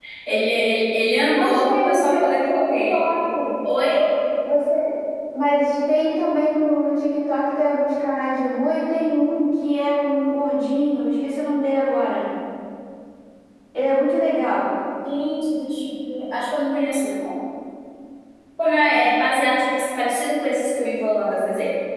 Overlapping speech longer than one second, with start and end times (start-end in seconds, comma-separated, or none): 1.3-3.0